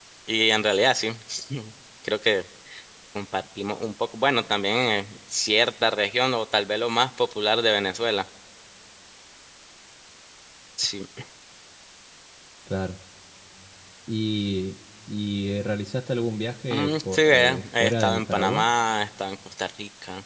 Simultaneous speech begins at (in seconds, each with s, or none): 16.7 s